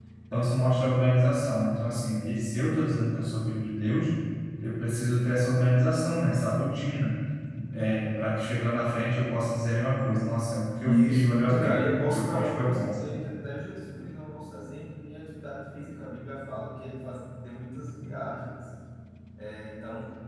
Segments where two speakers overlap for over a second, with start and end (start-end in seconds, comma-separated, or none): 10.9-13.0